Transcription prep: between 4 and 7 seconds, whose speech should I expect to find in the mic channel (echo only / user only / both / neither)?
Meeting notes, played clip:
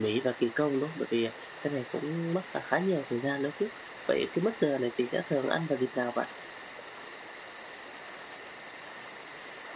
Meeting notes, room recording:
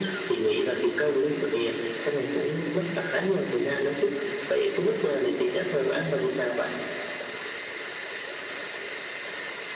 echo only